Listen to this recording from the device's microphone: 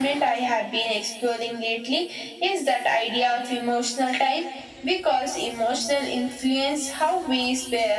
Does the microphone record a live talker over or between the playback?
No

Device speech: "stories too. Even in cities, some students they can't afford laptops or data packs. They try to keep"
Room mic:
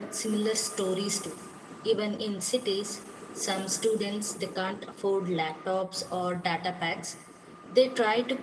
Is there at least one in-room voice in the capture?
No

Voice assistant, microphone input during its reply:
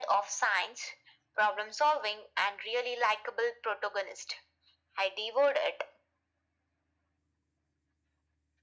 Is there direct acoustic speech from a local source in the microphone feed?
No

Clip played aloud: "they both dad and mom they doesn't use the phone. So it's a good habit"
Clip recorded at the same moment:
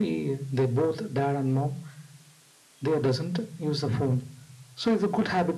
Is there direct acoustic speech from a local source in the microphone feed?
No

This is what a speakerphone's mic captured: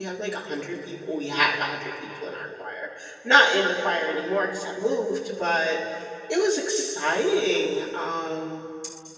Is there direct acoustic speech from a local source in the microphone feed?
Yes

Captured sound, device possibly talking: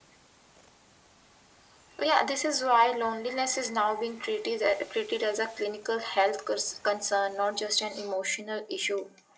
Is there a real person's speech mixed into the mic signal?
No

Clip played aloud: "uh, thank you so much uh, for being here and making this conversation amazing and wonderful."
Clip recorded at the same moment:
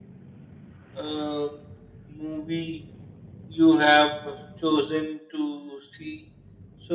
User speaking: Yes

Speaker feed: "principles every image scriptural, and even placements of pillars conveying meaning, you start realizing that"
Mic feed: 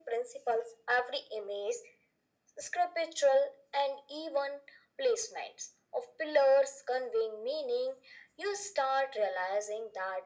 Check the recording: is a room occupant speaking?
No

